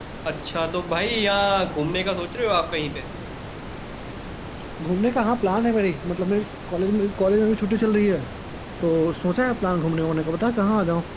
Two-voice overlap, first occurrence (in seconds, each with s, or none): none